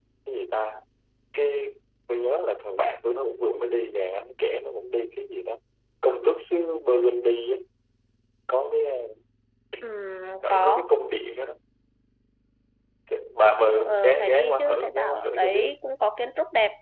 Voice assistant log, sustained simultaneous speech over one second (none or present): present